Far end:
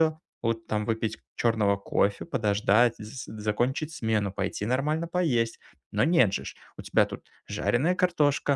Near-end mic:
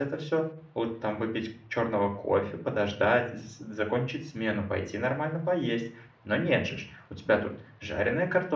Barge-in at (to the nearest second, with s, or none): none